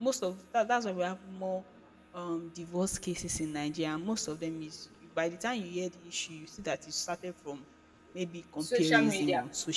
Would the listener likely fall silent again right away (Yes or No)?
Yes